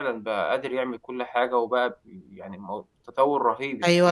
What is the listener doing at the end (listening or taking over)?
taking over